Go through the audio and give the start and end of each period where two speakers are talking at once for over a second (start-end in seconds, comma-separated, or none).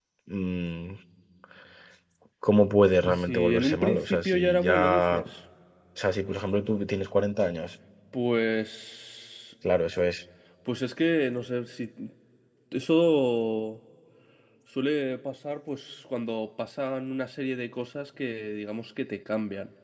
3.1-5.3